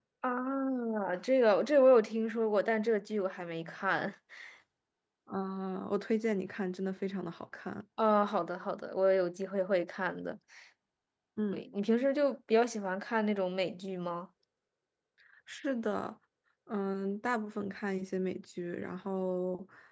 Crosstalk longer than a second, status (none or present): none